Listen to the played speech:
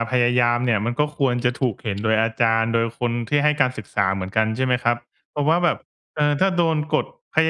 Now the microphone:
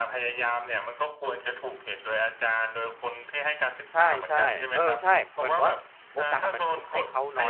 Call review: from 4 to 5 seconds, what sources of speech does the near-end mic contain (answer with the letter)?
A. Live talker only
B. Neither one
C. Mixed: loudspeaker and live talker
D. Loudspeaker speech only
C